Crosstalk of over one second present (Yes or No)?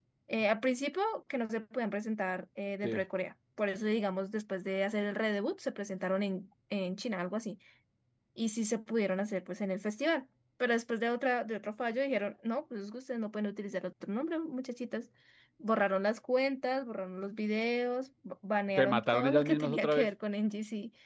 Yes